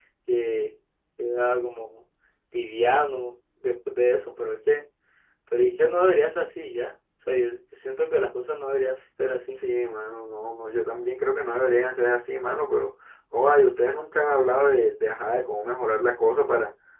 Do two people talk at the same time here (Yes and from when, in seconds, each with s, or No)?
No